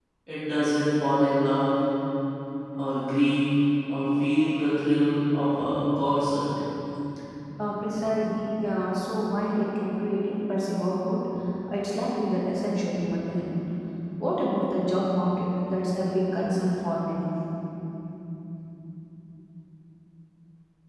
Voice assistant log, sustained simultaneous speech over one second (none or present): none